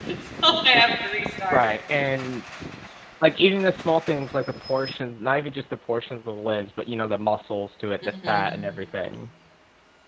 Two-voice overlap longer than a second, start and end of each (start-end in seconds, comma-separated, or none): none